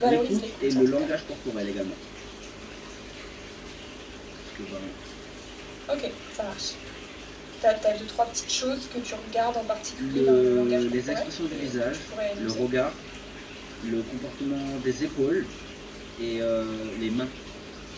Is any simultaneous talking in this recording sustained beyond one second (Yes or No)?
Yes